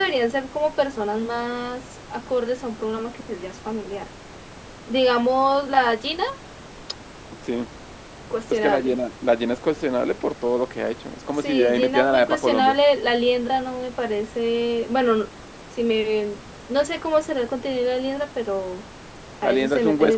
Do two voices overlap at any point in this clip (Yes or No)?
Yes